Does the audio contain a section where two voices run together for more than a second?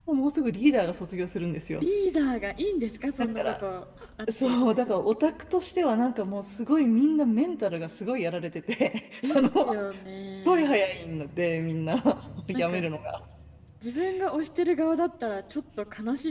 No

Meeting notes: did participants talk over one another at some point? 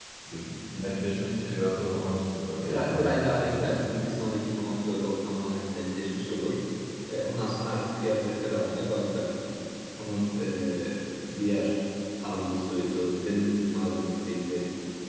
Yes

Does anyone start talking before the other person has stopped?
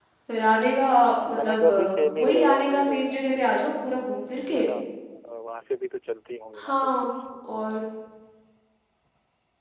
Yes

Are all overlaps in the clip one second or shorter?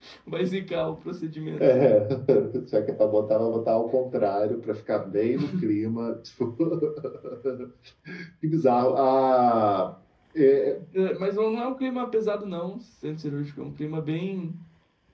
Yes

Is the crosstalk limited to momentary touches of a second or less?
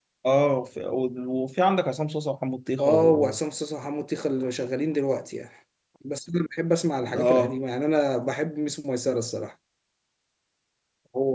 Yes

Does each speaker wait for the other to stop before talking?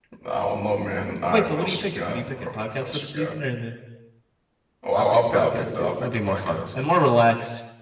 No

